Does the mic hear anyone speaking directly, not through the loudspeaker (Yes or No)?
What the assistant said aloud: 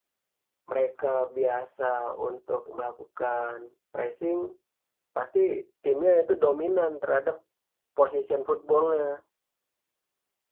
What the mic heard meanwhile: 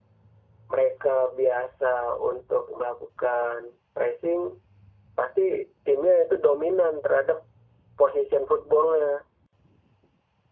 No